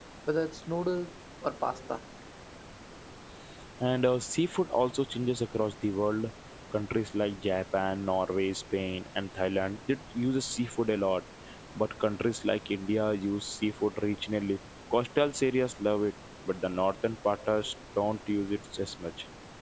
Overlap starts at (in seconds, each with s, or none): none